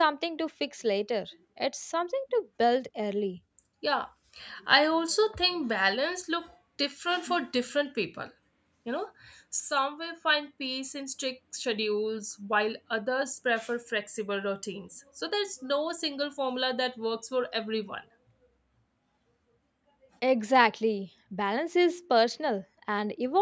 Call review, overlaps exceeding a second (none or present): none